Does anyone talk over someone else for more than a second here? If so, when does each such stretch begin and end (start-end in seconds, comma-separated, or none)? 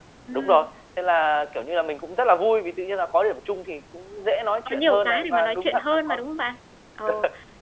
4.7-6.2